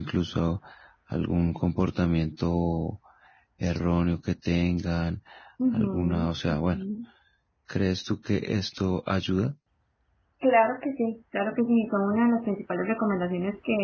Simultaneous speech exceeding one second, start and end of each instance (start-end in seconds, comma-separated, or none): none